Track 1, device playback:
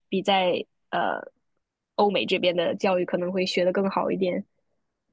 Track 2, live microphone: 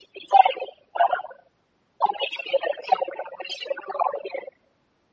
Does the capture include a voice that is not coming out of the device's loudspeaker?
No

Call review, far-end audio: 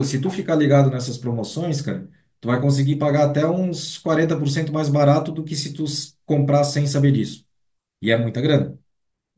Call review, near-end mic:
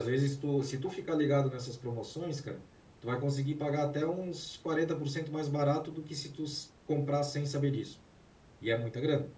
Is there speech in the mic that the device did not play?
No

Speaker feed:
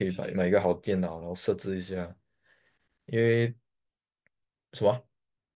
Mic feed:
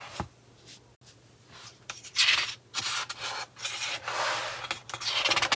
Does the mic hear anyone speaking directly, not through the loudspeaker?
No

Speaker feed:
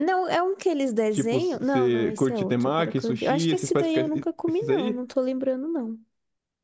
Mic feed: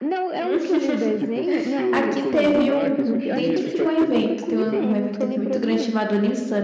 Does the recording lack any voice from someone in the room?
No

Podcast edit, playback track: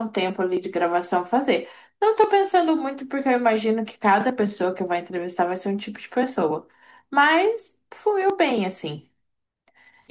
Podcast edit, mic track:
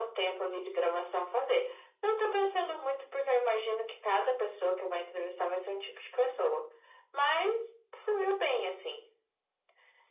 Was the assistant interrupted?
No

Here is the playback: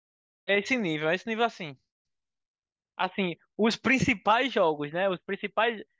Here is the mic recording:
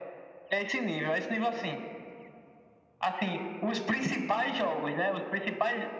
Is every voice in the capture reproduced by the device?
Yes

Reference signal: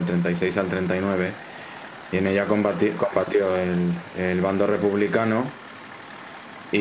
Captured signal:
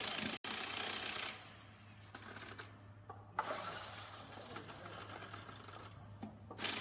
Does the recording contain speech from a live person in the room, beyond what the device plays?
No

